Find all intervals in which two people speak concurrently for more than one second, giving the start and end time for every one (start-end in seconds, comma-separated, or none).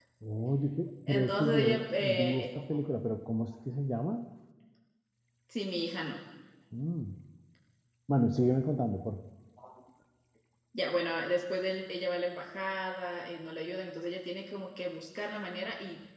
1.1-2.5